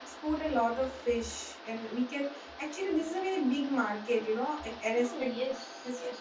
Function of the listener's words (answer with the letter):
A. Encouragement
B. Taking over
B